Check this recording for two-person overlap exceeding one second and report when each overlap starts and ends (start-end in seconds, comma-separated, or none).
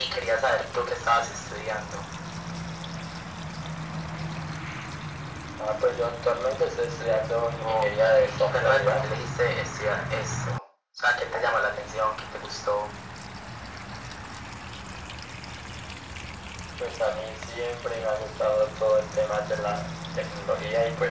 7.6-9.2